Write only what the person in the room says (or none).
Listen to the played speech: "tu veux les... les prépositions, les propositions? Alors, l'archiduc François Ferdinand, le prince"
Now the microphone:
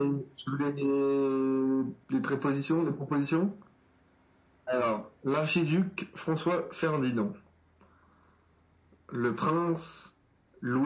none